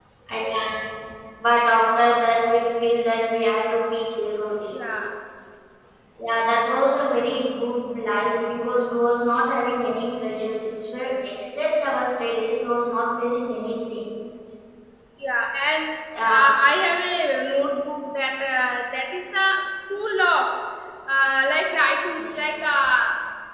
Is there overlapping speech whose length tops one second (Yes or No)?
No